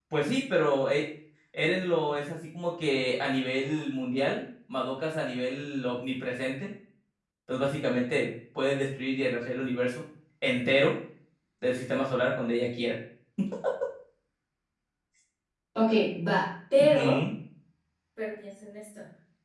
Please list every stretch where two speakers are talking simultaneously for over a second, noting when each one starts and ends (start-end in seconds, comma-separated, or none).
none